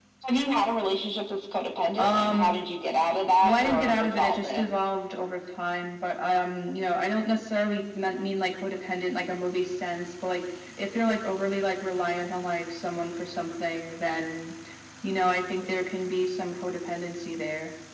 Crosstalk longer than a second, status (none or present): present